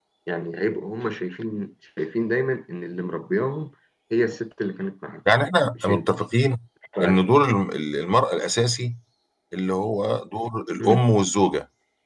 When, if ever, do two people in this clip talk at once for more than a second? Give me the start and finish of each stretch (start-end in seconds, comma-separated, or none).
none